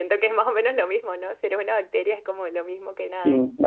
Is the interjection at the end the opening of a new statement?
Yes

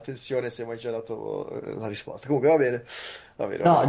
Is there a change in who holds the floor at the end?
Yes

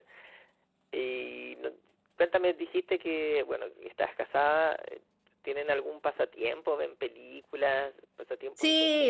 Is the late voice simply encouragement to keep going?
No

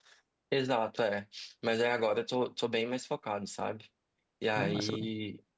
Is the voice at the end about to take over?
No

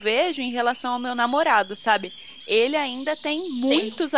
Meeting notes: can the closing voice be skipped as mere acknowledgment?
Yes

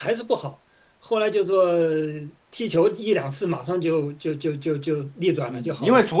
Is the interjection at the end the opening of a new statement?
Yes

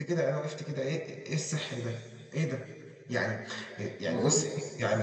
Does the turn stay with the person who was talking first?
Yes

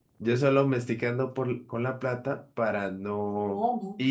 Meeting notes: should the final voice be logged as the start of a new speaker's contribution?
No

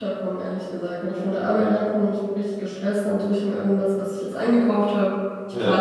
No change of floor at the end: Yes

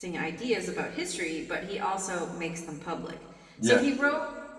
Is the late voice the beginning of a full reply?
No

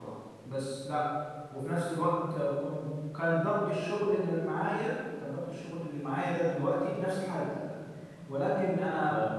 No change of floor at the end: Yes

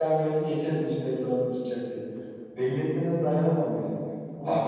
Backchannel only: Yes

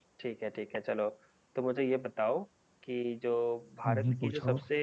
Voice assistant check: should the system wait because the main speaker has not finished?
Yes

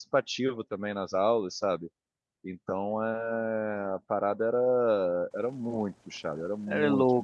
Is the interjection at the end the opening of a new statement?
No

